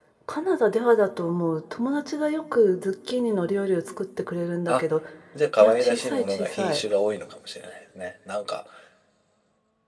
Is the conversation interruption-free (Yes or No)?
No